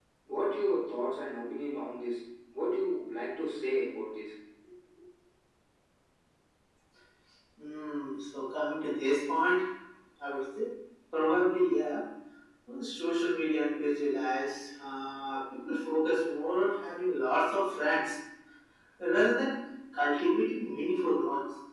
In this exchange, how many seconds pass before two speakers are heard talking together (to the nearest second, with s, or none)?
none